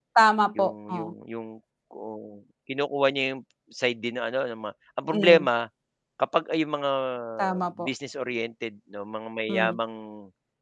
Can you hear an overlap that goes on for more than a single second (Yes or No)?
No